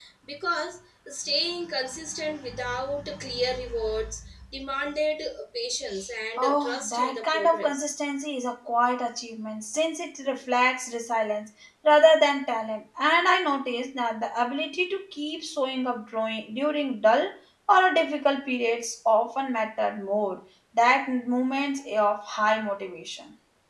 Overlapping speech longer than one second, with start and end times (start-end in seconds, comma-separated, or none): 6.4-8.0